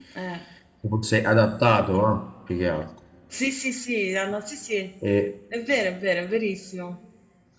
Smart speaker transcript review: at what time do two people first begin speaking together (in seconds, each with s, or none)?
none